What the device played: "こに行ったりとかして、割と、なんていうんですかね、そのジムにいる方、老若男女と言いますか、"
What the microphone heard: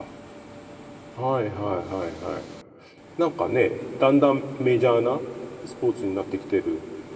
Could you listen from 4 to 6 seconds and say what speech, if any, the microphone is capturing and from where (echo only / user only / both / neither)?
user only